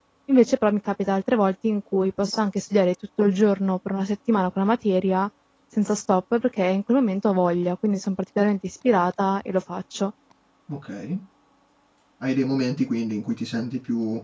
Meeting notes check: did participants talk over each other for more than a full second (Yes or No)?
No